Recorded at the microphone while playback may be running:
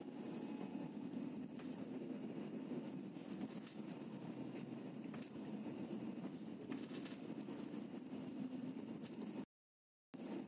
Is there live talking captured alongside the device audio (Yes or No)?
No